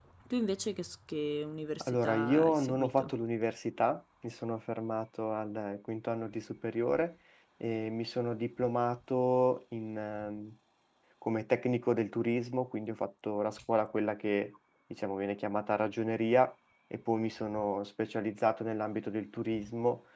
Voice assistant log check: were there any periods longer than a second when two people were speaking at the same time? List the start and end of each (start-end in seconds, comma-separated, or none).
1.8-3.1